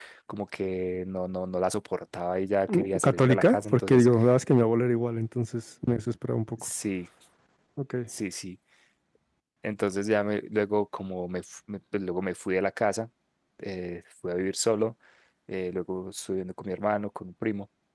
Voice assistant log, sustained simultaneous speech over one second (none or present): present